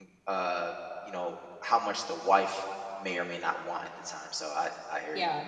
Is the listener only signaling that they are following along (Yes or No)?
No